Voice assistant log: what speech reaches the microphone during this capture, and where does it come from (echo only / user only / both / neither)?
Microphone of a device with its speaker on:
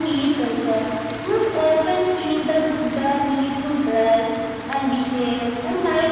echo only